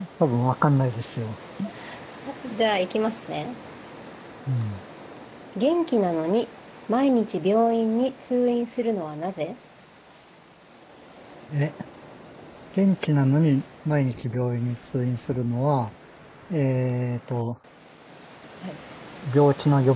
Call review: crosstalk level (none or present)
none